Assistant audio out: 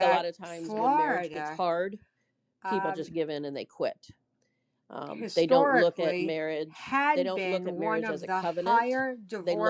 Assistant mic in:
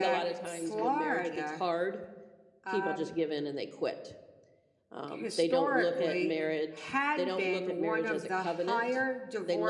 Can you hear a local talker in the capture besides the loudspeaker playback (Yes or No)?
No